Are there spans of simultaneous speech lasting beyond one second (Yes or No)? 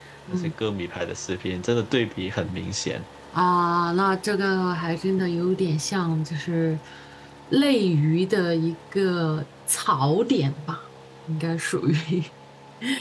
No